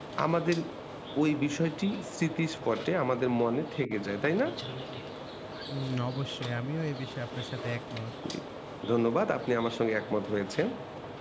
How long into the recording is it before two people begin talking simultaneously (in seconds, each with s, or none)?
none